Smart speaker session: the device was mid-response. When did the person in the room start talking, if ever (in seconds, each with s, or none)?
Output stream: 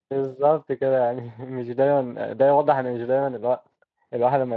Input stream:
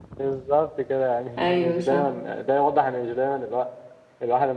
1.4 s